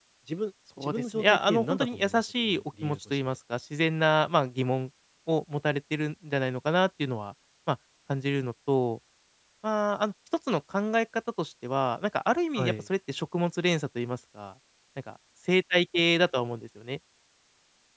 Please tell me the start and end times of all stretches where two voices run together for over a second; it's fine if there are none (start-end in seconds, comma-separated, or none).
0.8-3.2